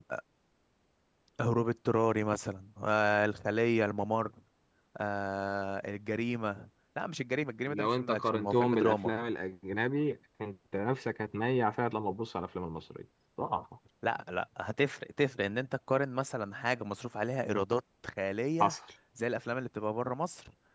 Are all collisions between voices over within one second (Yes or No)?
No